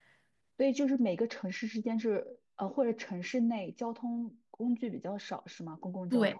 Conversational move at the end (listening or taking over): taking over